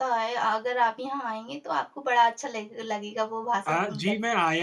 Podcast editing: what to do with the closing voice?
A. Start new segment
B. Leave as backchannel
A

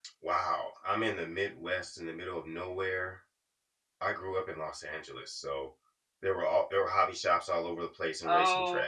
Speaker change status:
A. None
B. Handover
B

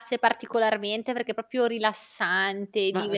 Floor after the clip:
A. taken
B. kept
A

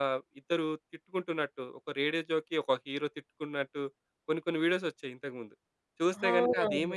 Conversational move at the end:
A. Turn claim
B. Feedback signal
B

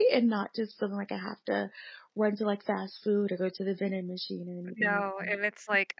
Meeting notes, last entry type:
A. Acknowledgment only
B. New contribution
B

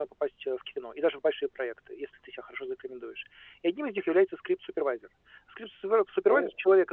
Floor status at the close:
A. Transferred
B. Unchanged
B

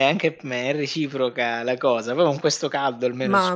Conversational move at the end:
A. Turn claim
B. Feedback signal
A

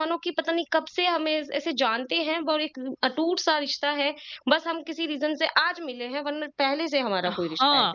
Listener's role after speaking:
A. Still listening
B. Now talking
B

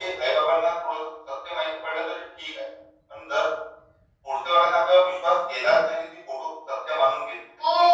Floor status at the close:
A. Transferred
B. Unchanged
A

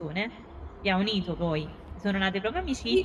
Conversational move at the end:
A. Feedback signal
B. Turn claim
B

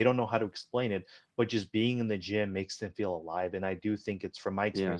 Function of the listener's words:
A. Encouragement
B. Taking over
A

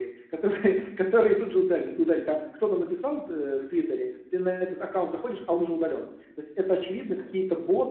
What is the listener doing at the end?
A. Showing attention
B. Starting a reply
A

